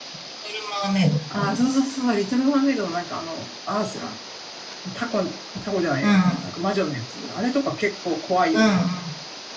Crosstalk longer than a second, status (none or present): none